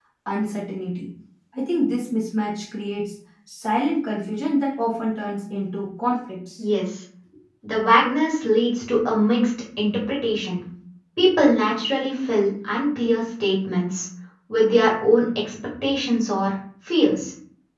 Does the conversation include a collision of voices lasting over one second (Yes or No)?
No